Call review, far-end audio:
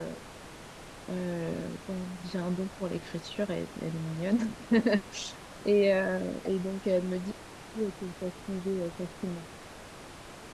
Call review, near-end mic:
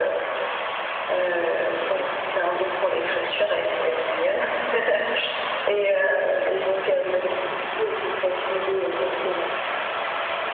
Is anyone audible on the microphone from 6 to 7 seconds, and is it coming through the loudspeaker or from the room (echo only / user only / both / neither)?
echo only